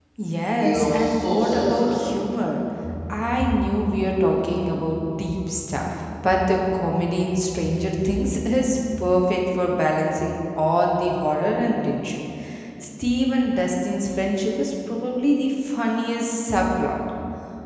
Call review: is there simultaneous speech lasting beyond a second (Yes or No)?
Yes